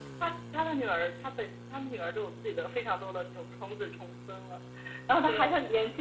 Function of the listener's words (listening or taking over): listening